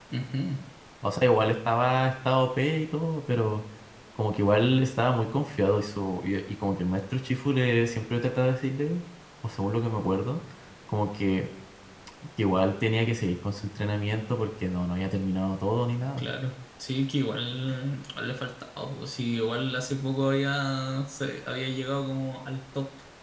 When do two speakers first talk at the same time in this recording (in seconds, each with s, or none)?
none